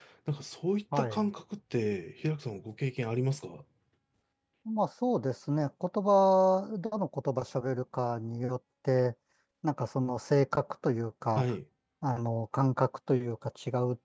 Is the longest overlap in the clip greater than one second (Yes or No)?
No